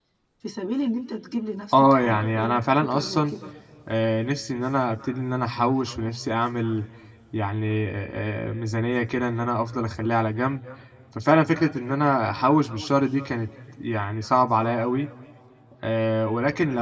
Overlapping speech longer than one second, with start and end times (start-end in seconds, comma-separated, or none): 1.7-3.3